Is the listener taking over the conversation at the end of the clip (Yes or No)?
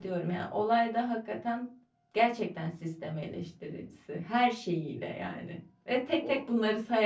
No